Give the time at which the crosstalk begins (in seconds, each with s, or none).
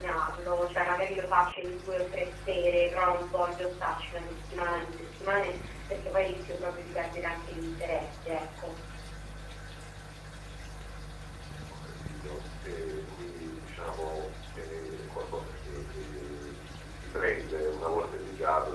none